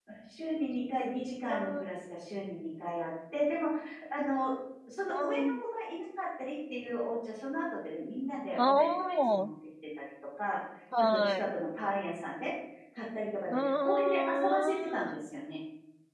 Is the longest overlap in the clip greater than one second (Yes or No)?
Yes